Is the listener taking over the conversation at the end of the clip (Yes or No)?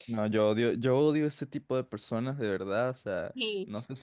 No